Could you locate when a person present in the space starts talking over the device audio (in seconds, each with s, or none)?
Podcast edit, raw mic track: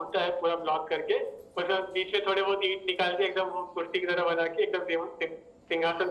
none